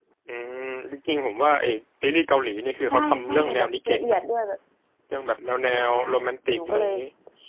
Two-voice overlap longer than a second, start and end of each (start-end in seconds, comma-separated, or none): 2.9-4.2